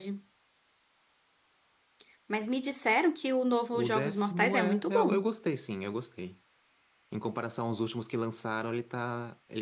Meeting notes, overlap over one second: present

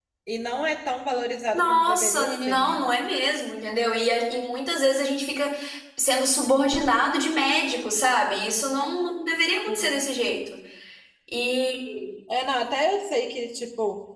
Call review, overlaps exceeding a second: present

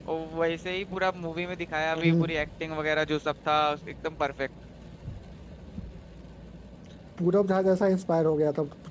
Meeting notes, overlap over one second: none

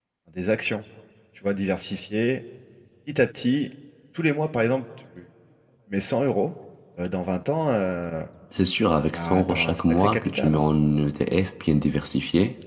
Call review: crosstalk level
present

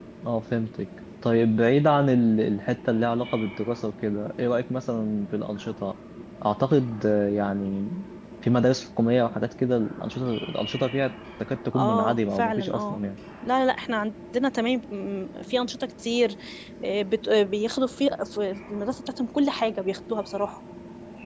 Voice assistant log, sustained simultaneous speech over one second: present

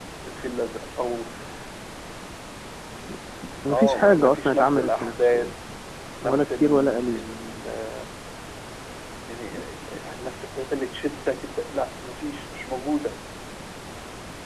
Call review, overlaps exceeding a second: present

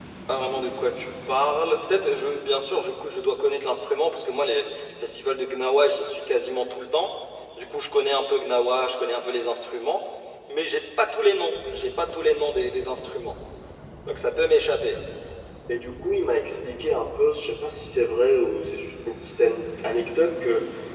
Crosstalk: none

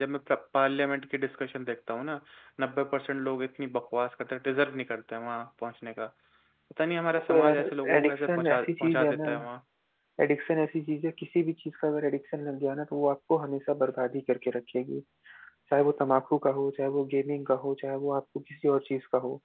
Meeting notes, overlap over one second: present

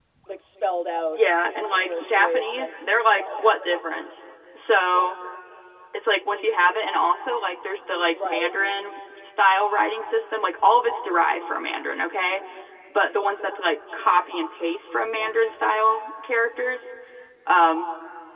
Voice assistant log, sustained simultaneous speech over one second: present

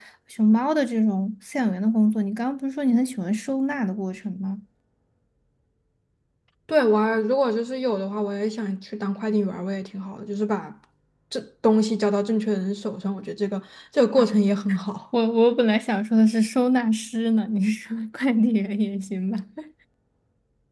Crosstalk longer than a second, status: none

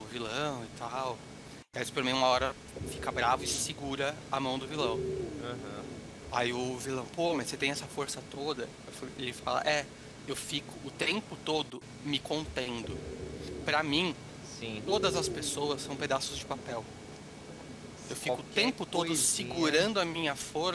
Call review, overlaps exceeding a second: present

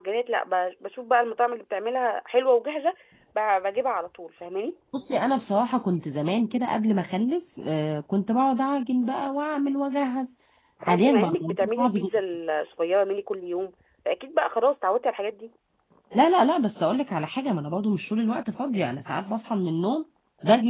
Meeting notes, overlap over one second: present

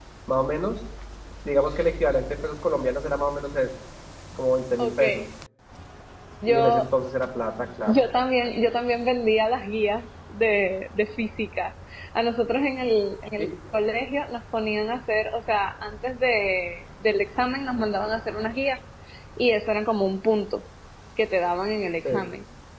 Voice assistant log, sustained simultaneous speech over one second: none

